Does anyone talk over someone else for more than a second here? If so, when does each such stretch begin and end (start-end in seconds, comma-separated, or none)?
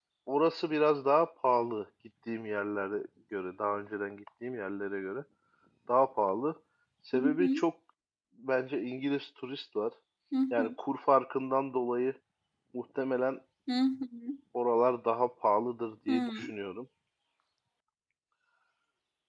none